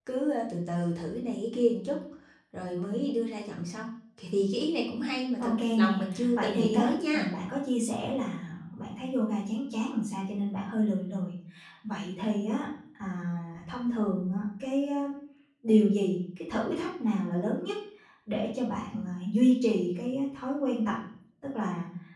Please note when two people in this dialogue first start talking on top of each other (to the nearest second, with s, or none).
5 s